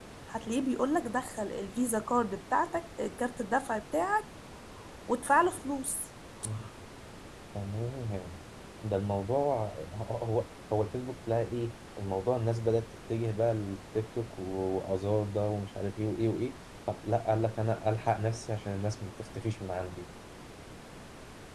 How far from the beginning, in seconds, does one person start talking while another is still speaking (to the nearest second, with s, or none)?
none